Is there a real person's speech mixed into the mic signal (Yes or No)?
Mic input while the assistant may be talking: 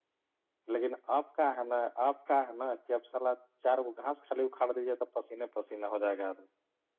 Yes